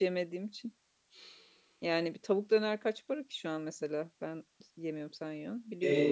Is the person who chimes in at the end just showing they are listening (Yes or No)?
No